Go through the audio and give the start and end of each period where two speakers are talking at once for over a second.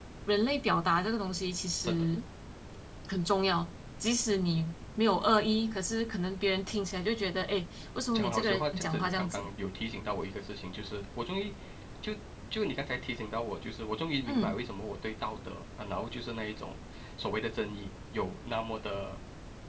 8.1-9.5

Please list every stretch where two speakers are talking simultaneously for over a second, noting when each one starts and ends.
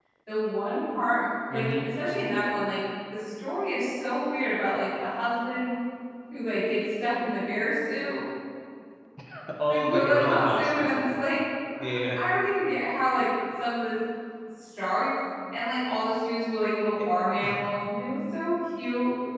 9.7-11.0

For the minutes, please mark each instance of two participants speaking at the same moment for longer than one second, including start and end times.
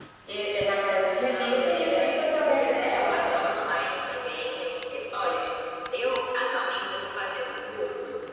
1.2-3.4

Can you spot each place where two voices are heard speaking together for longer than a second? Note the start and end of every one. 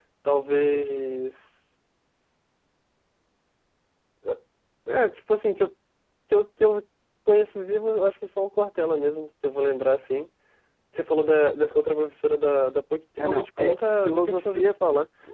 13.2-14.7

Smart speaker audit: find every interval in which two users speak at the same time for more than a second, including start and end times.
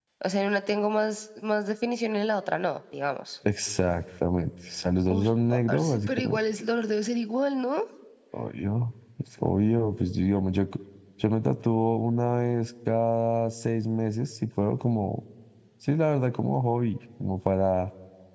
5.1-6.4

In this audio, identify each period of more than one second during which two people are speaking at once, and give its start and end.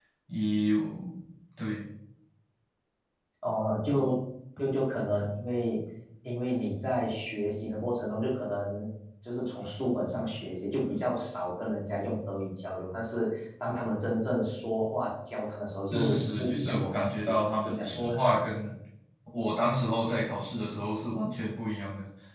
15.9-18.2

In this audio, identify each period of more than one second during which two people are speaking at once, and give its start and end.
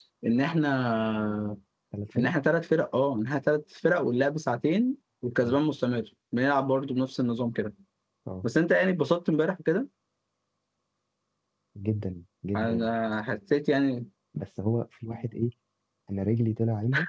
none

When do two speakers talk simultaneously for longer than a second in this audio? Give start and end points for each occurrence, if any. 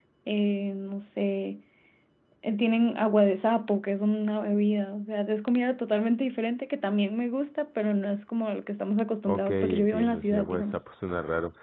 9.3-10.8

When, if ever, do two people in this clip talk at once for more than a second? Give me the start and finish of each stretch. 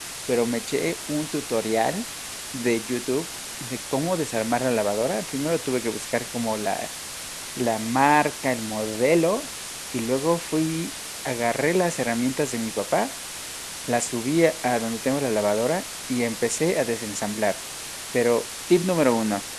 none

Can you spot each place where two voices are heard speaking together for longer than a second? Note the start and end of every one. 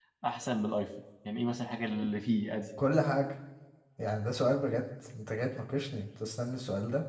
none

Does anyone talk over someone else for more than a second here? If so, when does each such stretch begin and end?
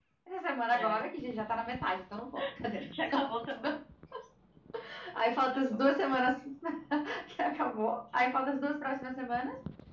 none

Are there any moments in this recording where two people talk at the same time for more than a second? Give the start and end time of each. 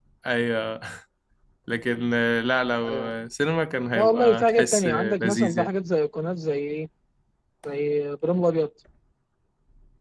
4.0-5.7

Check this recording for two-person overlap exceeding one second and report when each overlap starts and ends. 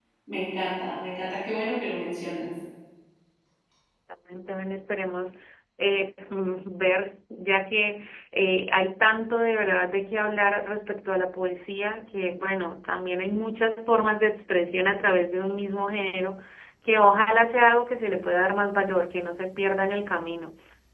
none

